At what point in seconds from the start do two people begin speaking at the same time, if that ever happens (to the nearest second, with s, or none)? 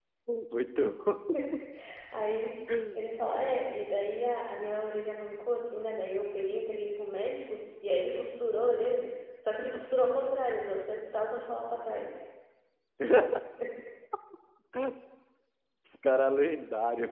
none